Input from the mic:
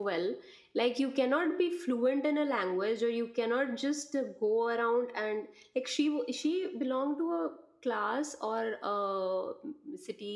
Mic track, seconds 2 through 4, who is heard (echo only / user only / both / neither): user only